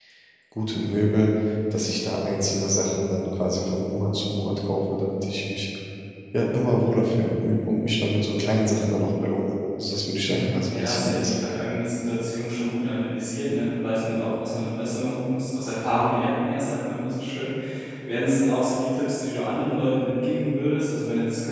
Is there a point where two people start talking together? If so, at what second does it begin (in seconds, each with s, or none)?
10.3 s